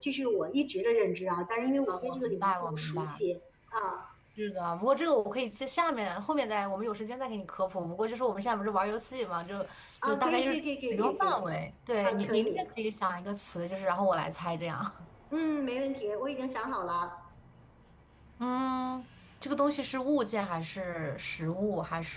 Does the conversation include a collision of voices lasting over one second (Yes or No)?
Yes